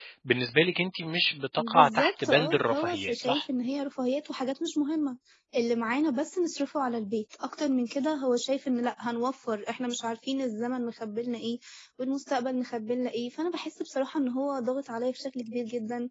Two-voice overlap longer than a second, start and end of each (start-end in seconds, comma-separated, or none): 1.6-3.4